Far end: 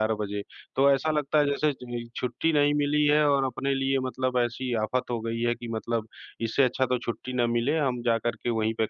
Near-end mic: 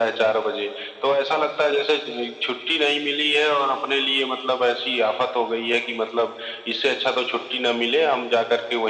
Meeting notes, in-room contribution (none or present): none